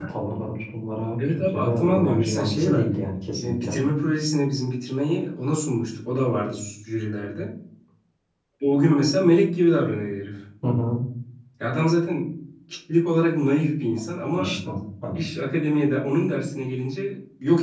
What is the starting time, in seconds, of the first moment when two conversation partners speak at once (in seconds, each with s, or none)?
1.2 s